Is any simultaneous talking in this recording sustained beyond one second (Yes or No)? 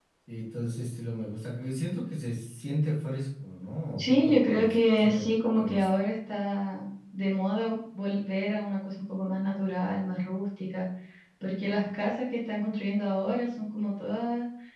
Yes